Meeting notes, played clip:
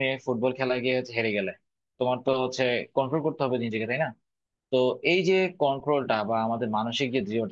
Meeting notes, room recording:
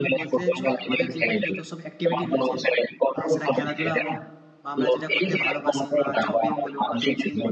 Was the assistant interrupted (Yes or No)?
Yes